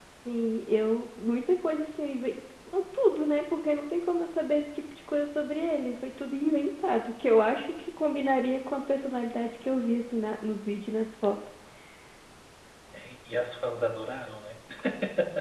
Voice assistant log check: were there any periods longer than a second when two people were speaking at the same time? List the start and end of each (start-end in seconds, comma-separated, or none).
none